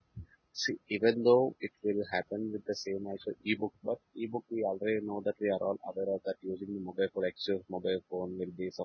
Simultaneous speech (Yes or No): No